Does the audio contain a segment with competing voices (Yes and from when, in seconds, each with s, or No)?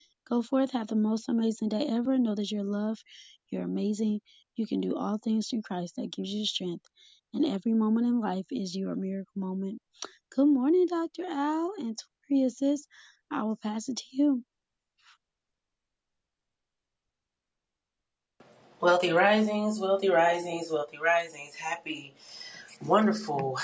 No